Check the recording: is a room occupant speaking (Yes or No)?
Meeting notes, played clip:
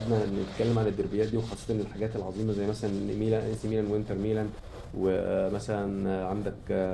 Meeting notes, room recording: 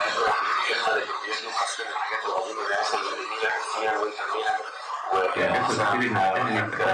Yes